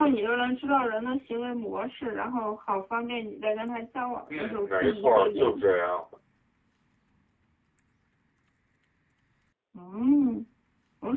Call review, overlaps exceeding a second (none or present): present